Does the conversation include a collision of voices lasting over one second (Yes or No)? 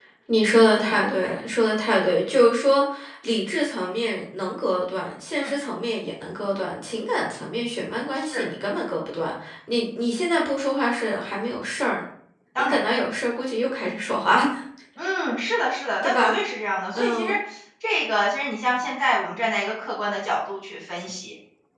No